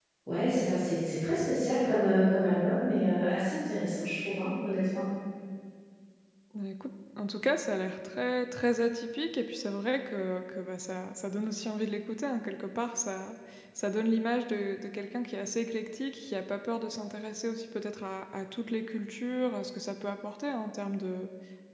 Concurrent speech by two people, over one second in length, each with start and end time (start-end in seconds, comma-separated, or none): none